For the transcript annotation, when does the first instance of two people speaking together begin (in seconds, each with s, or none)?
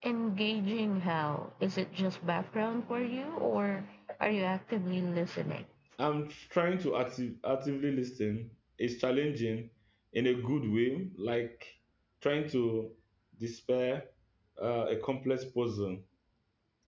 none